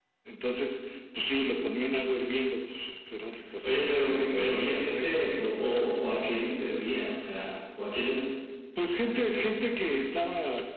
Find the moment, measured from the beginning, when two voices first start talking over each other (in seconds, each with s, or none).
3.6 s